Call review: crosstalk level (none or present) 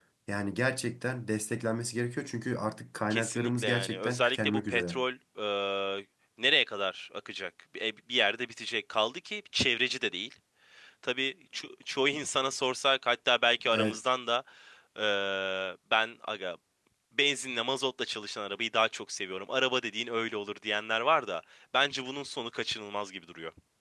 present